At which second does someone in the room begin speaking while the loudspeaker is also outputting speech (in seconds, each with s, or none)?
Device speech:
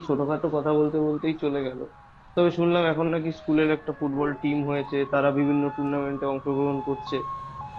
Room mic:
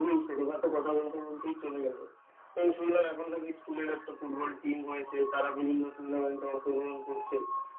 none